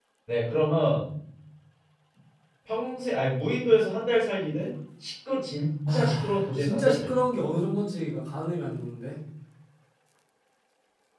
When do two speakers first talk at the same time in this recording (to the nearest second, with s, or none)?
6 s